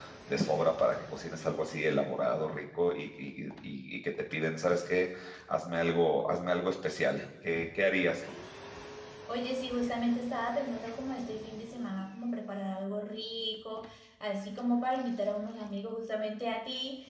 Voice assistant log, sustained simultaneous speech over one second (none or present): none